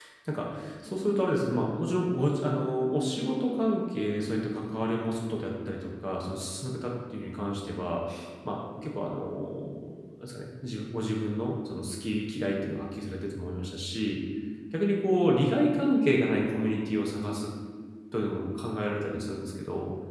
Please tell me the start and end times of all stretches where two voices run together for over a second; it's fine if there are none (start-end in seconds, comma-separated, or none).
none